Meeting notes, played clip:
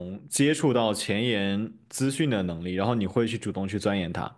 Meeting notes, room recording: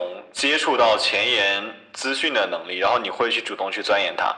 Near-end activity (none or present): none